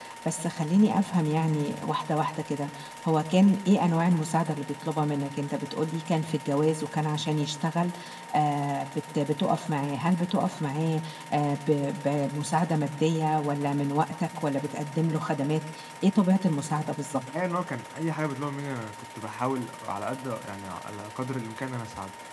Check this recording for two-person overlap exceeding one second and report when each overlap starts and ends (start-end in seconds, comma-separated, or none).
none